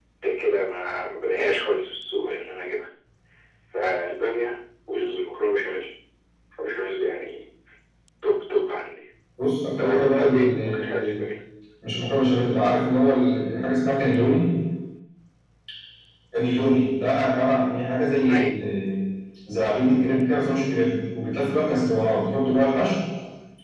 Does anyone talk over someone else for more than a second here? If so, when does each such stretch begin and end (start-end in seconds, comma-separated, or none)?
9.8-11.2